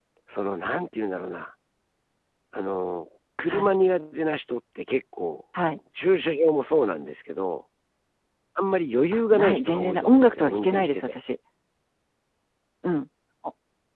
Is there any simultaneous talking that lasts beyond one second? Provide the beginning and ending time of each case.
9.1-11.1

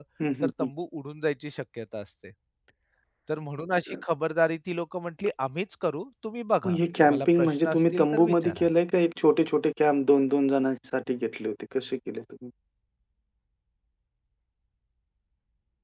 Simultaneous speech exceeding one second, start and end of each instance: 6.7-8.7

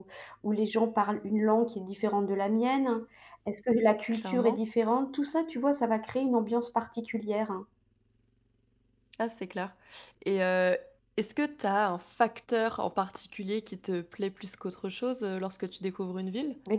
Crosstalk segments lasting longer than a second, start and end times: none

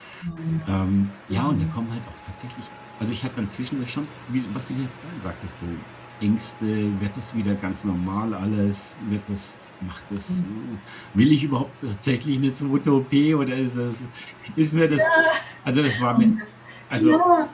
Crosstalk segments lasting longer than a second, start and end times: none

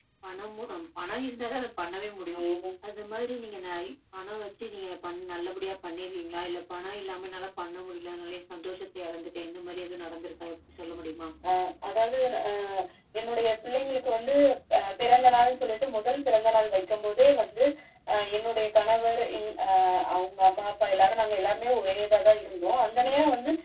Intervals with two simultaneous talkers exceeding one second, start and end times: none

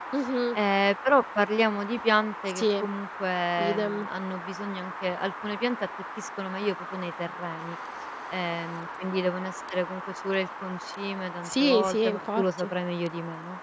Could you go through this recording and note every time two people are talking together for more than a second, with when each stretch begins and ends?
11.4-12.7

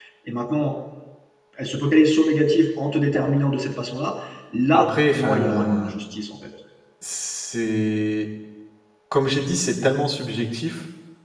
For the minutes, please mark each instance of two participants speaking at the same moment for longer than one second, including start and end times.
4.7-5.9

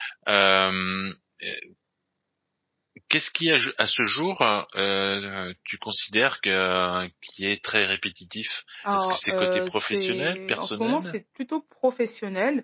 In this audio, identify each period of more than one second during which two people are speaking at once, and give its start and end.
8.9-11.1

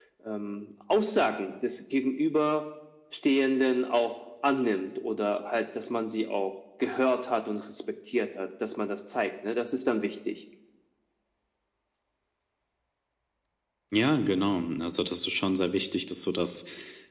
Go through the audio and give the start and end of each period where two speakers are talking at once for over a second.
none

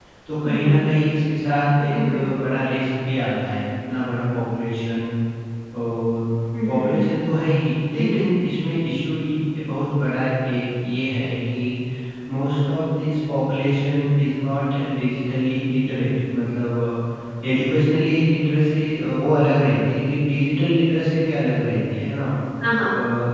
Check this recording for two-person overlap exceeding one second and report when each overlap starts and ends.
none

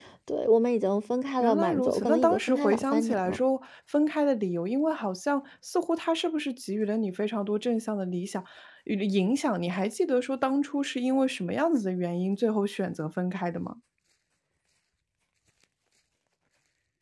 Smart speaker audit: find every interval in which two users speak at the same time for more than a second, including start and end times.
1.4-3.4

